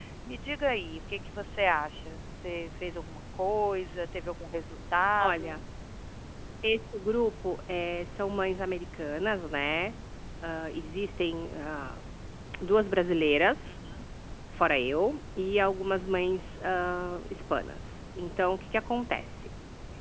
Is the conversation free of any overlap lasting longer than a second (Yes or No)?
Yes